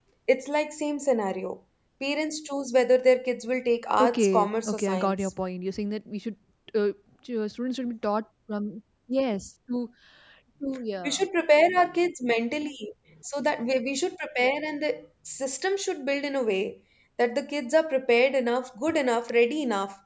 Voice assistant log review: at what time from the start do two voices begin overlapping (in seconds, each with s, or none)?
4.0 s